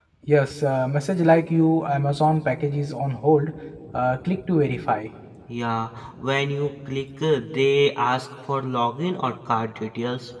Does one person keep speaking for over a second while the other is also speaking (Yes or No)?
No